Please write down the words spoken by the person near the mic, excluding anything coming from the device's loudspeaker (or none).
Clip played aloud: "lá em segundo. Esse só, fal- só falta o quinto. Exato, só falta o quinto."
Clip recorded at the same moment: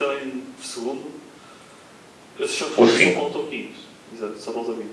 o 5.